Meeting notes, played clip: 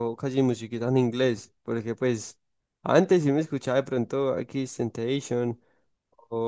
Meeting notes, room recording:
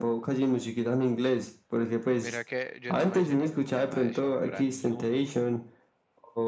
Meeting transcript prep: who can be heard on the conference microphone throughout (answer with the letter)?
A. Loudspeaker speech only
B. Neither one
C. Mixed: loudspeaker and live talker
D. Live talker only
C